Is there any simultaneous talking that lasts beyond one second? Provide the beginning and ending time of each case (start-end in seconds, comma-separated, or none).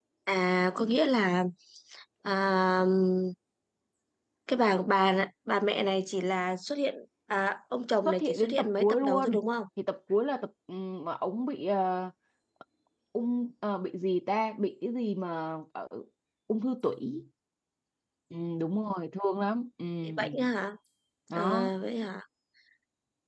8.0-9.4